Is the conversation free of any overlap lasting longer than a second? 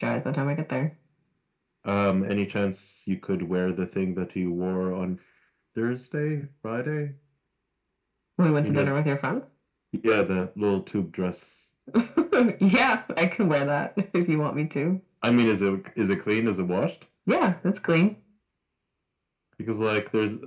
Yes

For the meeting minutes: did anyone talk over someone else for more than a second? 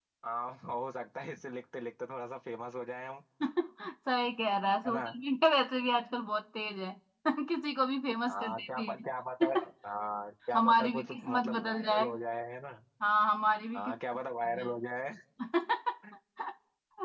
Yes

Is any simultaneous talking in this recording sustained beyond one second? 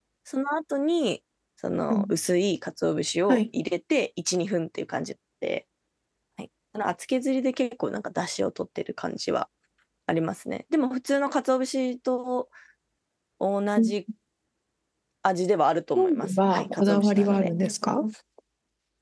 Yes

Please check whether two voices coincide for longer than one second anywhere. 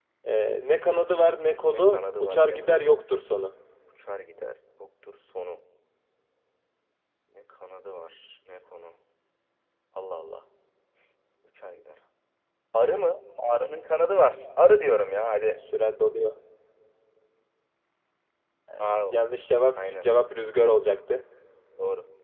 Yes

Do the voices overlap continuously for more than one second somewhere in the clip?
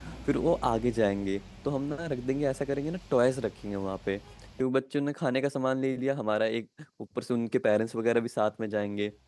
No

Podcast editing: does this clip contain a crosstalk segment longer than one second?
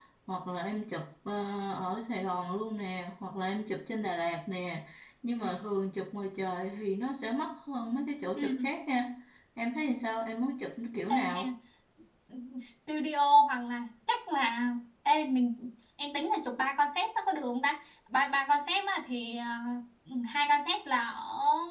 No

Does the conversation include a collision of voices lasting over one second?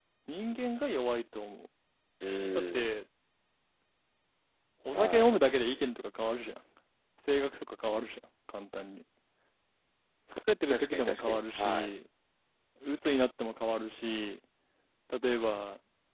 Yes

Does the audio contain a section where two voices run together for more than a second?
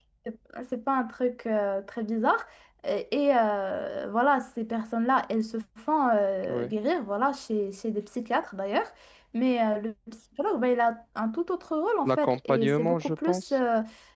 Yes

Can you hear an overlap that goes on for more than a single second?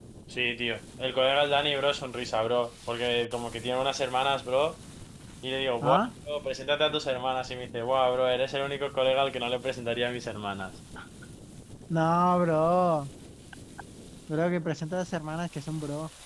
No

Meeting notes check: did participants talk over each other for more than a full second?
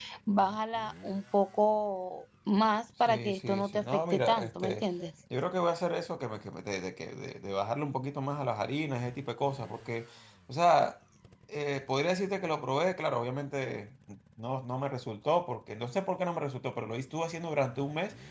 Yes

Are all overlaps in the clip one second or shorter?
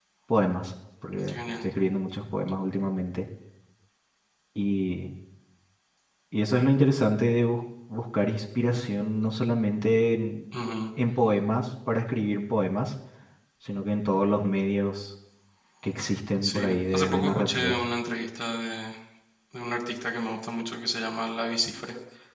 No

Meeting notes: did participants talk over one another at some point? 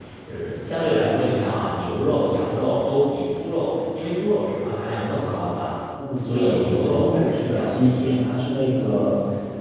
Yes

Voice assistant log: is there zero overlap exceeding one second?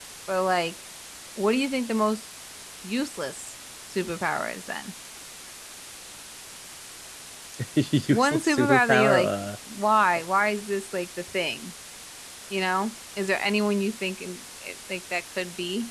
No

